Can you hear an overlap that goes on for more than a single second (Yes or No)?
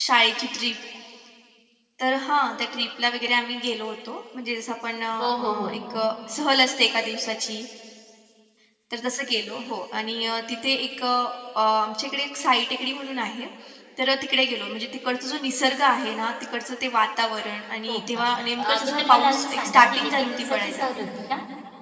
Yes